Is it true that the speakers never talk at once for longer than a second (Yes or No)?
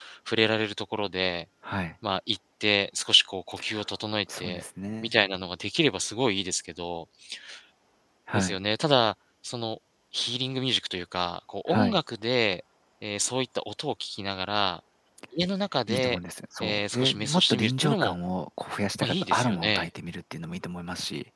No